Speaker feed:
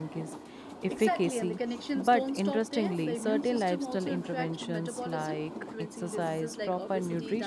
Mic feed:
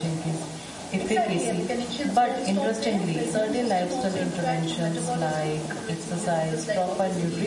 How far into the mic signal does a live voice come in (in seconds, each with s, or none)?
none